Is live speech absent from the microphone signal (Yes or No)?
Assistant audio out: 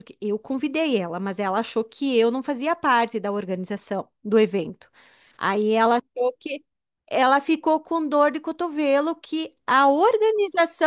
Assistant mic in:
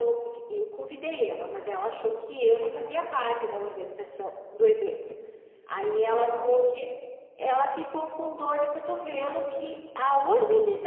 Yes